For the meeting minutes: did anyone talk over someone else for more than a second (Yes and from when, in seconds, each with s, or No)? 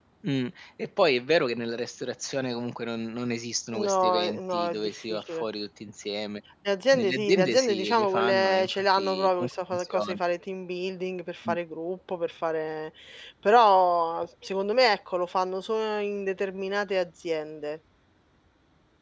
Yes, from 3.8 s